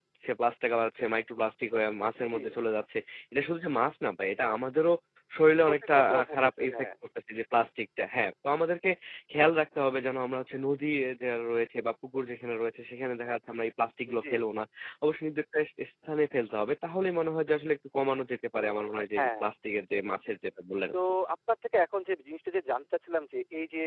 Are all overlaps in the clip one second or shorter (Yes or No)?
No